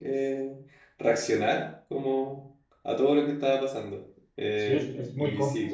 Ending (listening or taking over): taking over